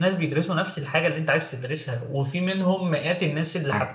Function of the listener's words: listening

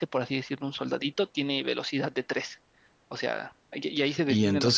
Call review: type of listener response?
taking over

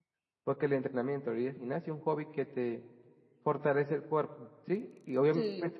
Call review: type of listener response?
listening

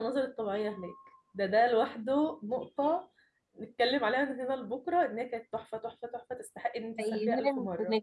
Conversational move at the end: taking over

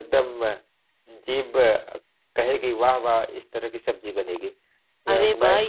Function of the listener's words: taking over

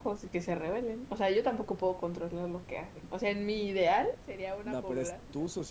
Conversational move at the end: taking over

